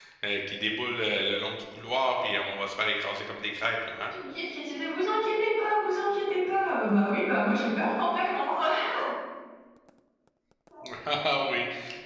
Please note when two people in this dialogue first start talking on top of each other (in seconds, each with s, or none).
none